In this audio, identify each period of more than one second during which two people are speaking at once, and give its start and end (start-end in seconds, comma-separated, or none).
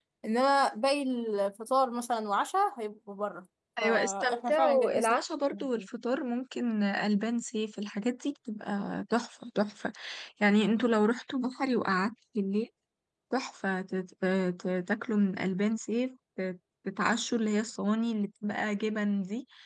3.8-5.2